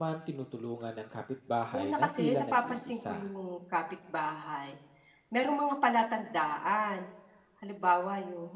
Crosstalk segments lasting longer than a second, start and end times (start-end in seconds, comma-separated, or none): 1.7-3.2